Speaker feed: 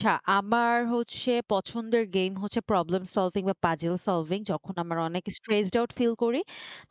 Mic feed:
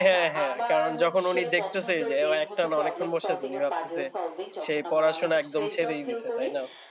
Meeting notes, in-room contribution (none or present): present